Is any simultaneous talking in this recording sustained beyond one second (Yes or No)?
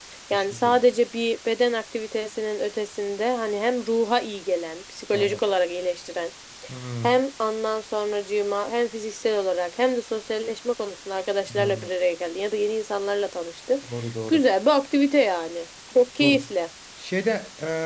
No